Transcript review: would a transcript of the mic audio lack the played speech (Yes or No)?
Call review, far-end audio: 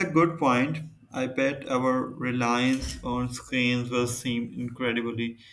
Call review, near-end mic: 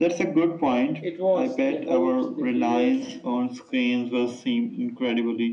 No